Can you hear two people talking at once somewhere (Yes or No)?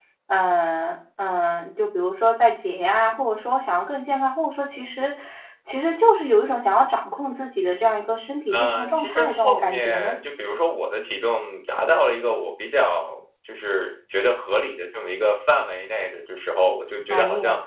Yes